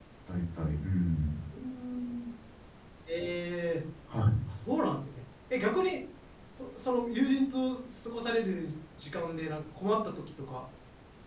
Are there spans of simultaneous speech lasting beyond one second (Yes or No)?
No